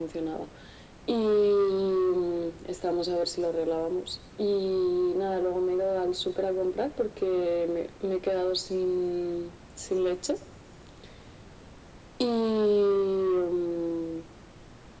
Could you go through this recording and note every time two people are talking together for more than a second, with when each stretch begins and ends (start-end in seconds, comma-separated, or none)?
none